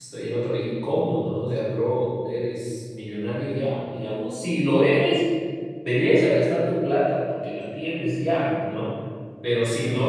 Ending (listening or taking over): listening